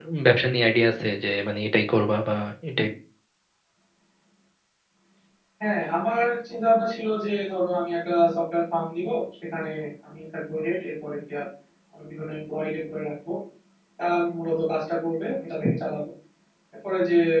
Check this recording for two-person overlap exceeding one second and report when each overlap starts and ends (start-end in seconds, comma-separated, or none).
none